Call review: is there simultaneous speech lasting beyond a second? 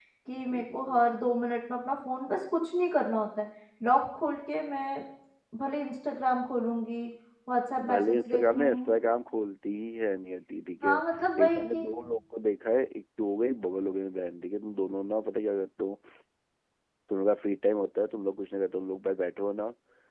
Yes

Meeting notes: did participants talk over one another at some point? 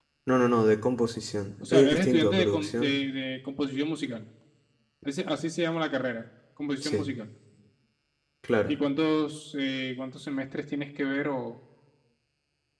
Yes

